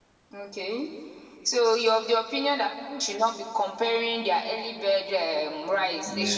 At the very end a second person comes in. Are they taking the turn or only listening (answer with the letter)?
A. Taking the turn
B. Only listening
A